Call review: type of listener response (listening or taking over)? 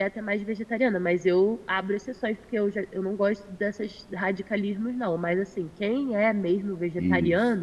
listening